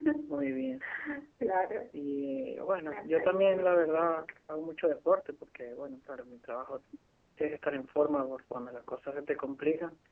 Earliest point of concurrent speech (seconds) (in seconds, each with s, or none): 2.9 s